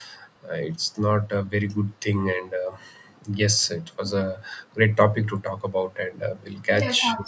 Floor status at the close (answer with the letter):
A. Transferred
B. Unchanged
A